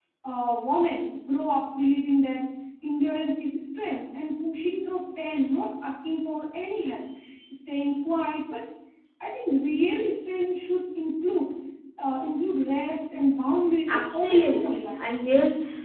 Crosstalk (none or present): present